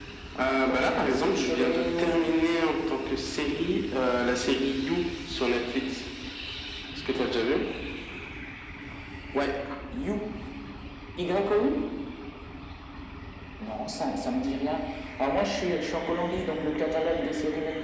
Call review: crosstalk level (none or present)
present